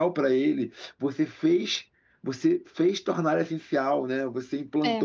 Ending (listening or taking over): listening